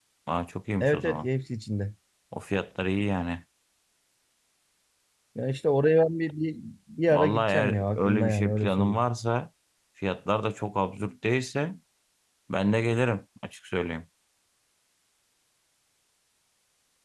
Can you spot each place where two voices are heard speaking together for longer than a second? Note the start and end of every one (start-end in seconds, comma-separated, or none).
7.1-9.0